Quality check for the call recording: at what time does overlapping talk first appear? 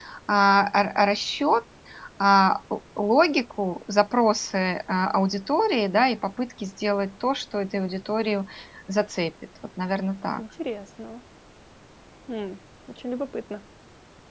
none

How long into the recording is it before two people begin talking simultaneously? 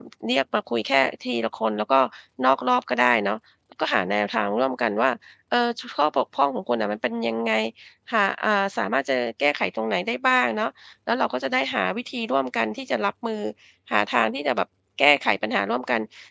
none

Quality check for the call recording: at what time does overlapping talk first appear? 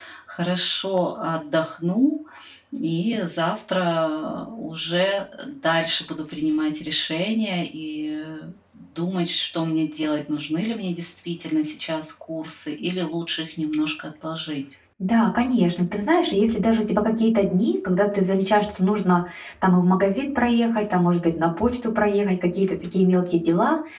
none

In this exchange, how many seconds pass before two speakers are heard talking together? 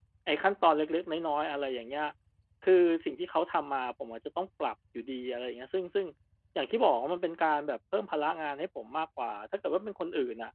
none

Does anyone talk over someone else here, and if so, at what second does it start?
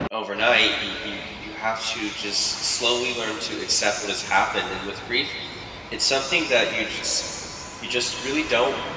none

